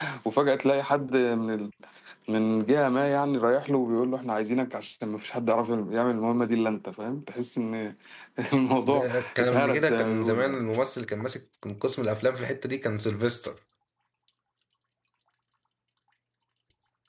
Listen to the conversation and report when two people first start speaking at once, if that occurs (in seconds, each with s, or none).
8.9 s